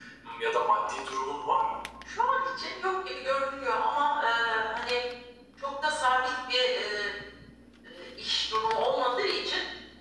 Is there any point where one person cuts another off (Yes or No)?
No